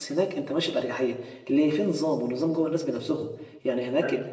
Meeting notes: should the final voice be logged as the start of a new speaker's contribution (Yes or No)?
No